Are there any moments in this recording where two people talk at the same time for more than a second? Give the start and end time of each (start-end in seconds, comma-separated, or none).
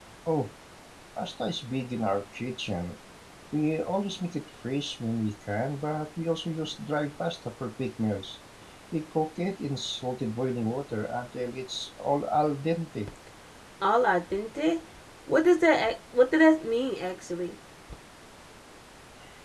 none